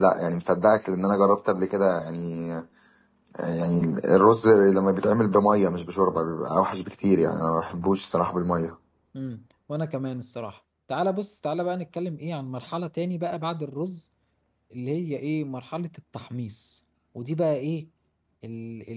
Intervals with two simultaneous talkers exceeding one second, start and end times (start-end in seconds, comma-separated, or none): none